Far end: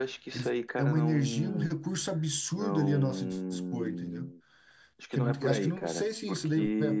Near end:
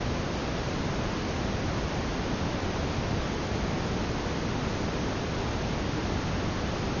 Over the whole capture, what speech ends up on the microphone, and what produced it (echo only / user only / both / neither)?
neither